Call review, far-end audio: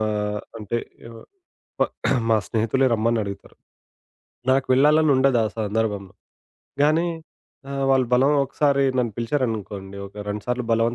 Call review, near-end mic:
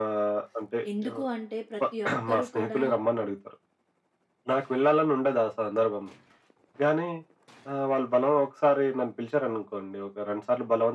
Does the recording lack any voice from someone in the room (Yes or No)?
No